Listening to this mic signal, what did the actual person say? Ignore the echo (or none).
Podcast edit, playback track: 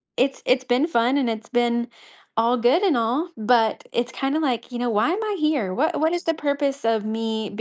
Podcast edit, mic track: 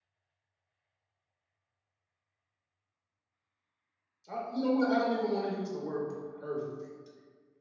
I you know what, I don't even wanna use the word perfect.